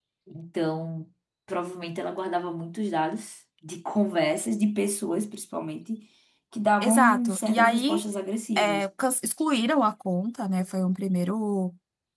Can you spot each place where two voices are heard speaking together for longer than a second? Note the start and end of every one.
6.8-8.0

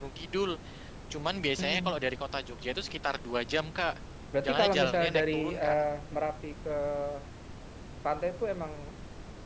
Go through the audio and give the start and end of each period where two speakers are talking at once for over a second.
4.4-5.8

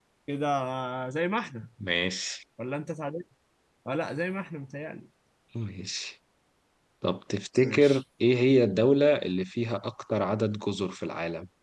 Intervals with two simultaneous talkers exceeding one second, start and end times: none

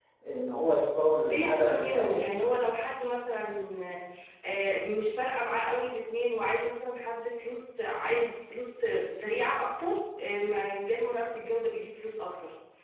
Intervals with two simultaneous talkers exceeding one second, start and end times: 1.3-2.5

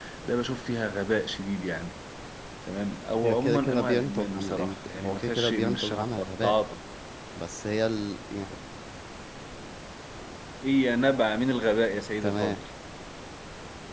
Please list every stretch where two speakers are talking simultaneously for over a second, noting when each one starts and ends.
3.2-6.5

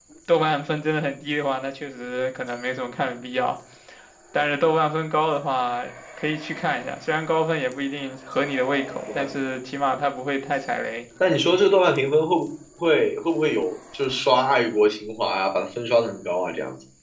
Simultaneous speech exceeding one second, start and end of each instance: none

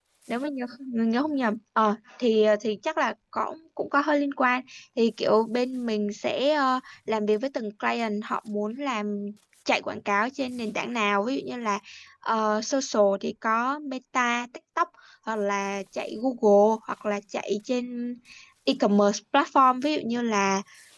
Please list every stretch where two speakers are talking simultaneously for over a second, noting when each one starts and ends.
none

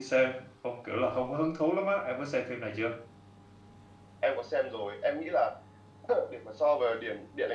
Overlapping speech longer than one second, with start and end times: none

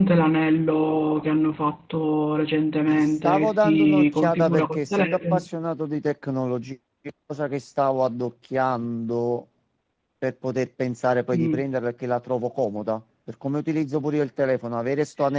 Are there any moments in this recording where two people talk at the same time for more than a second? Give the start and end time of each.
2.9-5.4

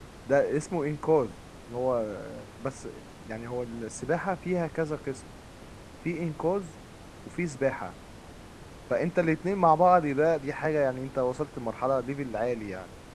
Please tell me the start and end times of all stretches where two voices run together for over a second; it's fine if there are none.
none

